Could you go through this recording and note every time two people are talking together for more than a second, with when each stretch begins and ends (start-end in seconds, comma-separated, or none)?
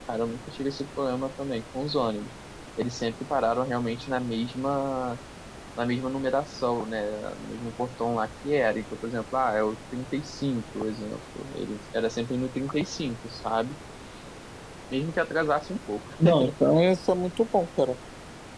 none